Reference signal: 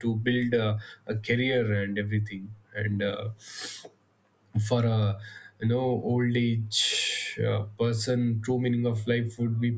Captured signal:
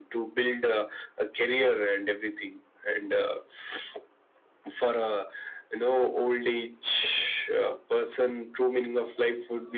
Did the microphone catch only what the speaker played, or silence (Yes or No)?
Yes